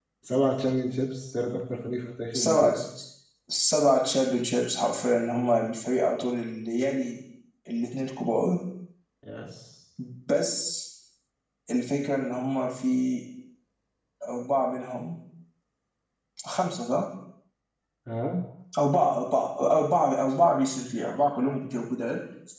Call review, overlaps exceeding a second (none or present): none